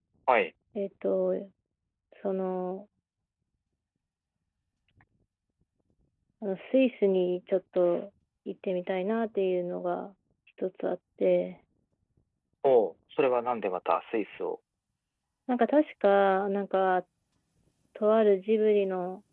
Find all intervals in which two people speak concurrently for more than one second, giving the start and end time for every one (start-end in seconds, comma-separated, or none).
none